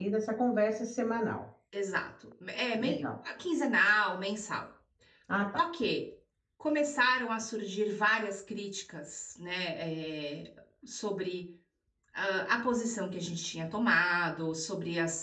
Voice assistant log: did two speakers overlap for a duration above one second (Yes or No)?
No